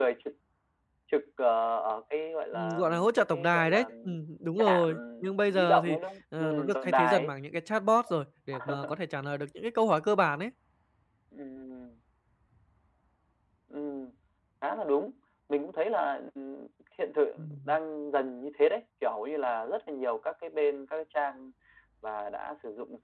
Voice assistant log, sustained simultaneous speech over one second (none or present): present